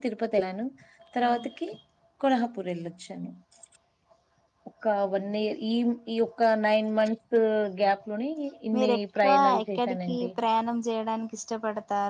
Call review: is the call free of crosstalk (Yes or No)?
No